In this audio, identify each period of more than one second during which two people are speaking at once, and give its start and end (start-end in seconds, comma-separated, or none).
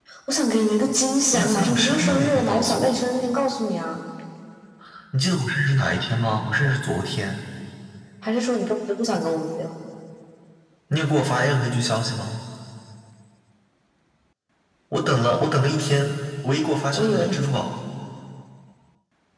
1.3-3.0